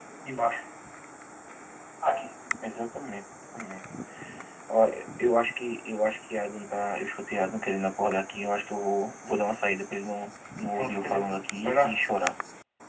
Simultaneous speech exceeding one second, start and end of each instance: 10.8-12.1

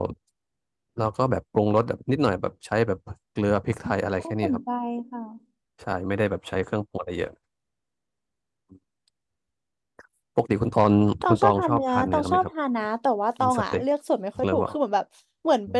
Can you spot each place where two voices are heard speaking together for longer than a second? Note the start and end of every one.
11.3-12.5

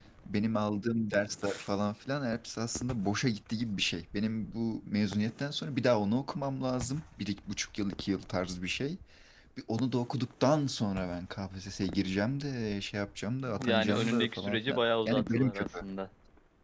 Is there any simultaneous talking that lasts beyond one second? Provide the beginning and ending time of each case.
13.6-15.7

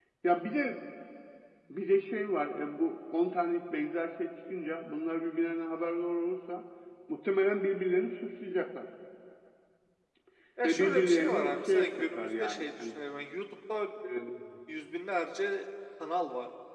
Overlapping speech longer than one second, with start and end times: 10.6-13.0

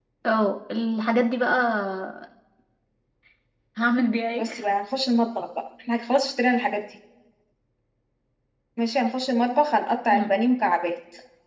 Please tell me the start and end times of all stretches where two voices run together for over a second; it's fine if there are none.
none

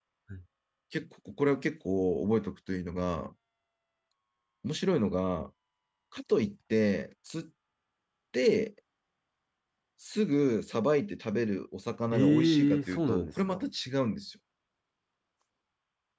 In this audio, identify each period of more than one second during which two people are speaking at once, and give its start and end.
12.1-13.6

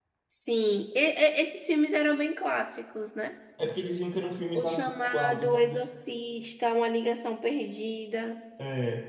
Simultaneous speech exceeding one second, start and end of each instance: 4.5-5.9

